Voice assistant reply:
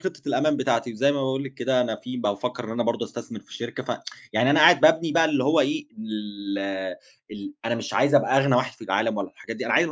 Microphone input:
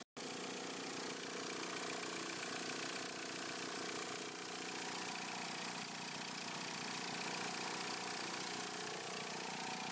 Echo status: none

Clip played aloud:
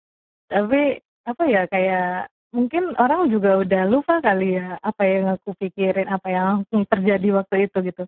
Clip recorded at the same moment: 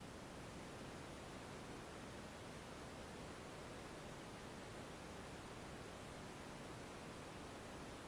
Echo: none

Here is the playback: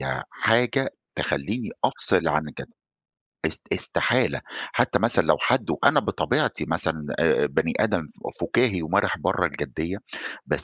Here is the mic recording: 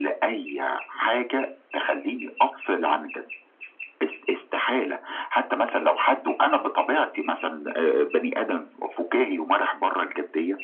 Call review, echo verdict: present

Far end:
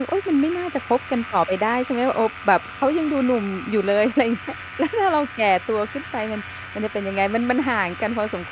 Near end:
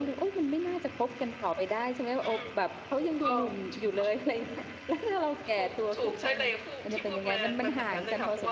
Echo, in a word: present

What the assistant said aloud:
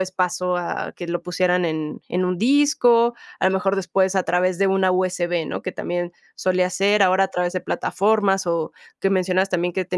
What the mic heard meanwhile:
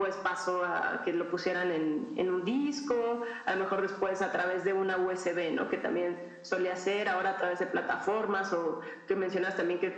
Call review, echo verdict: present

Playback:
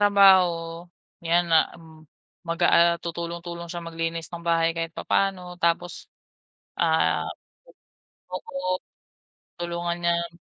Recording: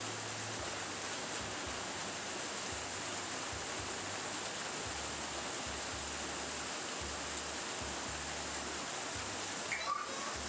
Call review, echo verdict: none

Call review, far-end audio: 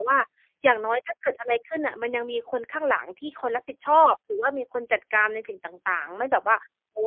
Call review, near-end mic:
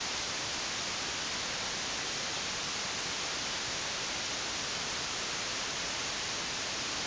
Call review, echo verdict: none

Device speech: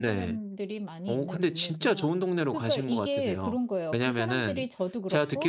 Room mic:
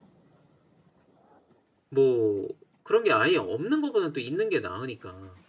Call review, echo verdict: none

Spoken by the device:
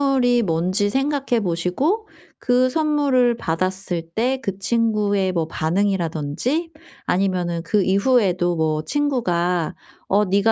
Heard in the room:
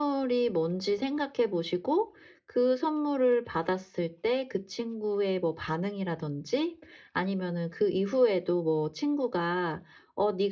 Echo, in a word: present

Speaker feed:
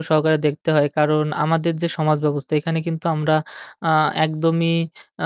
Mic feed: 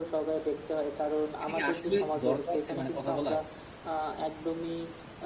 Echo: present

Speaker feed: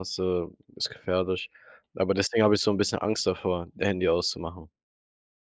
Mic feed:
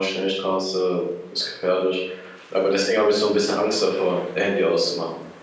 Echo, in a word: present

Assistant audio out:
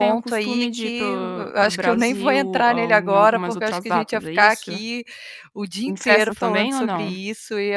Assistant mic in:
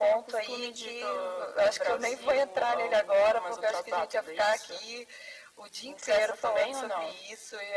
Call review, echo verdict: present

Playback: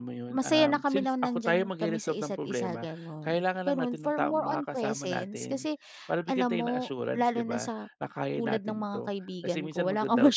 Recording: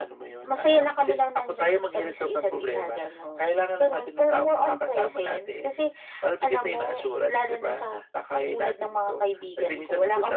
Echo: present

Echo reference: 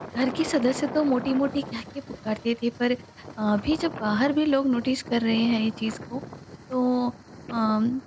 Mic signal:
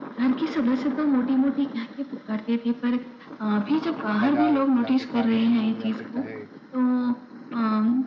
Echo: present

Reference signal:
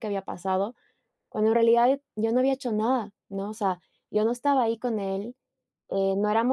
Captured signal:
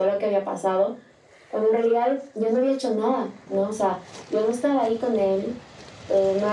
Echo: present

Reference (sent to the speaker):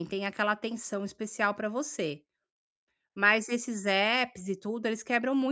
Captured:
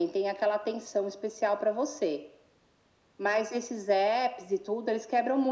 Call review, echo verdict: present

